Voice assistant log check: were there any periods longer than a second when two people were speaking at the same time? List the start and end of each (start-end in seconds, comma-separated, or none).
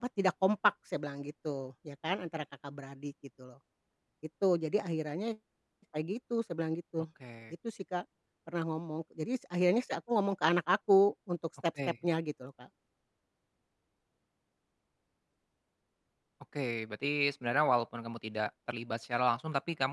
none